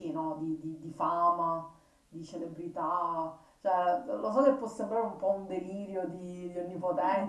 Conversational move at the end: taking over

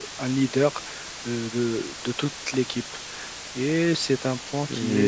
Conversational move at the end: taking over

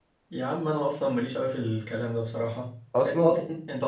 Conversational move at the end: listening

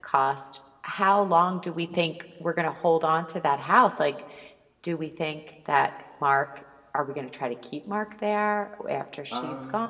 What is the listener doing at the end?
taking over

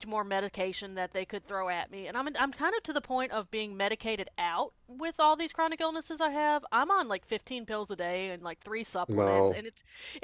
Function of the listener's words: listening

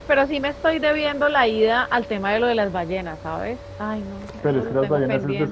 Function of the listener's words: taking over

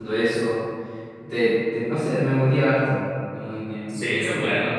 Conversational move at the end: taking over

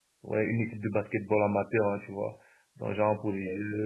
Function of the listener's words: listening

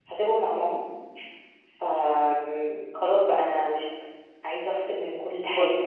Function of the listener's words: listening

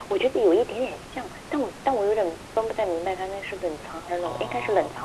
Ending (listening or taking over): taking over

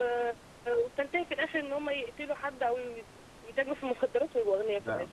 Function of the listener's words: taking over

